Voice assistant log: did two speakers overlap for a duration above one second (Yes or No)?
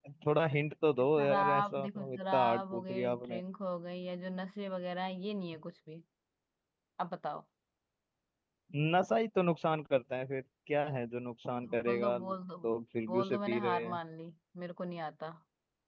Yes